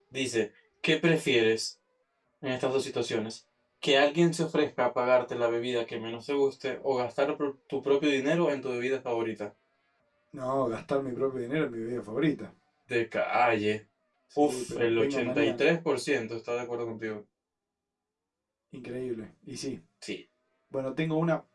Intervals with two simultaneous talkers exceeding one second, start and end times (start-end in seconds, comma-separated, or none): 14.4-15.6